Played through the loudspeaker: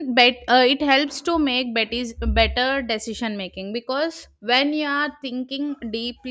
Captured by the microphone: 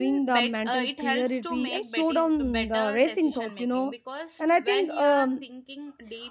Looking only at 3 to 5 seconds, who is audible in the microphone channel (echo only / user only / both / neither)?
both